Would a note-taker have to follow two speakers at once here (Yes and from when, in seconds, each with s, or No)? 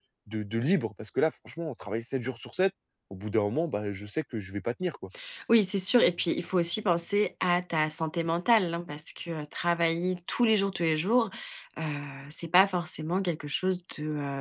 No